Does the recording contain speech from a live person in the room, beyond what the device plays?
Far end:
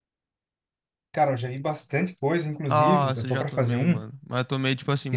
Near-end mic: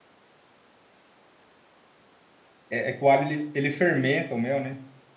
Yes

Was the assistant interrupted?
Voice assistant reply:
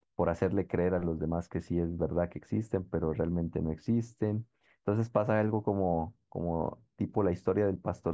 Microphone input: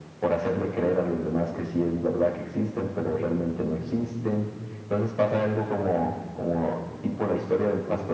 No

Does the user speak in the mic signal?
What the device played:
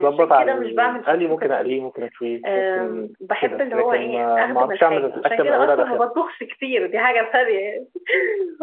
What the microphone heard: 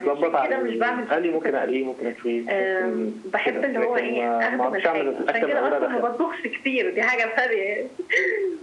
No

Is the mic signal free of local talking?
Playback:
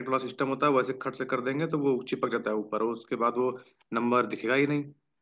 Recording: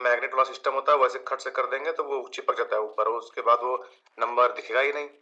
Yes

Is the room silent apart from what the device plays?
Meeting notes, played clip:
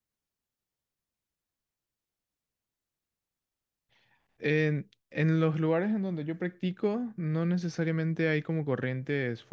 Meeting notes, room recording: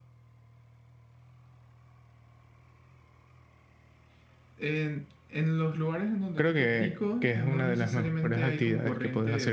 No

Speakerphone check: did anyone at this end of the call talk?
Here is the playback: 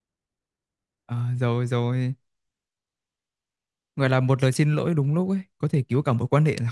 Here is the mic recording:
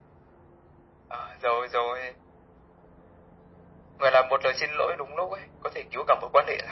No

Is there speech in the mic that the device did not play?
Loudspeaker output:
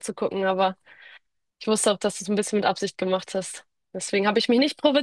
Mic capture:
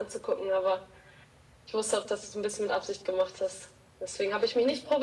No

